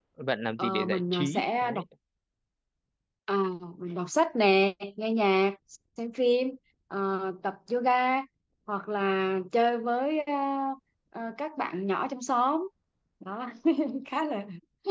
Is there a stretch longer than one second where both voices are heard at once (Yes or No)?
Yes